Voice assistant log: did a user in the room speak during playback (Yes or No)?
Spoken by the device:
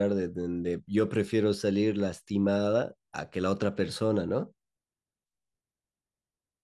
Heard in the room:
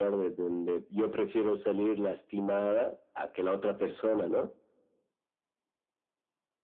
No